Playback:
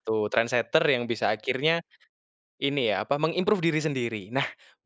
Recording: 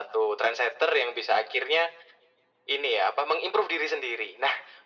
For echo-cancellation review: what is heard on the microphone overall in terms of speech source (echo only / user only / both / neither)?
echo only